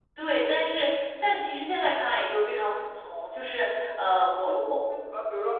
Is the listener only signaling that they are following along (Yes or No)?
No